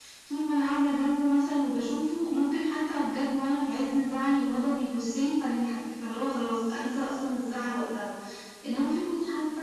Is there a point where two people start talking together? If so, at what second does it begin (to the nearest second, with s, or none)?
none